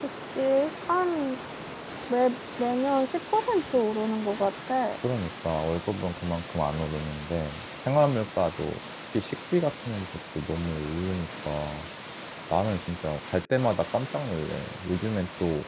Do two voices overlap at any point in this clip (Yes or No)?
No